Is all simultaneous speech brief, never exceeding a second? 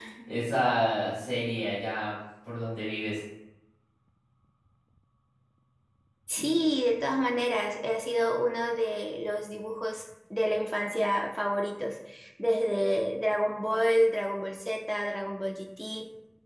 Yes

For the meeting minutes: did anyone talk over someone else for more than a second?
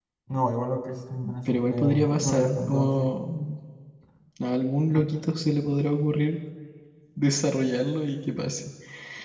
Yes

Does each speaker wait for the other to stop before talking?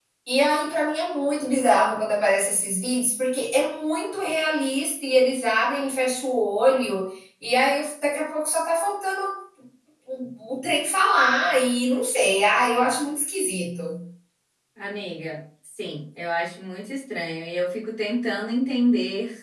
Yes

